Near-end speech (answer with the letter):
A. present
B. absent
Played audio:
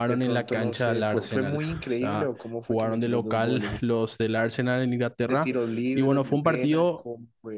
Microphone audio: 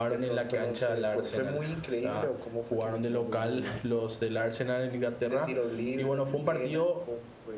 B